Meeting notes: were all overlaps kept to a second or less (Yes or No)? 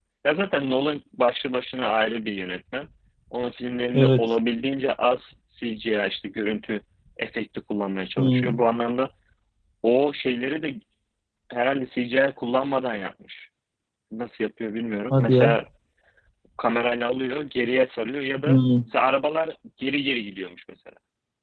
Yes